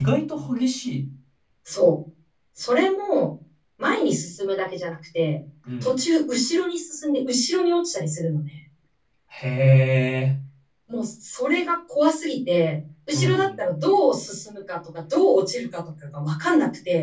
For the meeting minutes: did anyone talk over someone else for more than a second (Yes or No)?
No